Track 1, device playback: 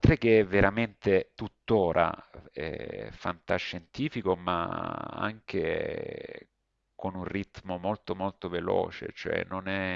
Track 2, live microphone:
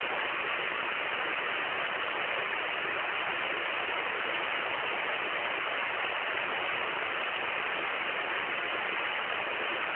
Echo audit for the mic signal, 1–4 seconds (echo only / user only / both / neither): neither